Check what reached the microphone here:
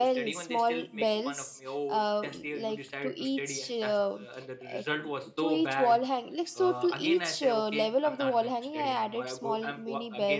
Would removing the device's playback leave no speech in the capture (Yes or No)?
No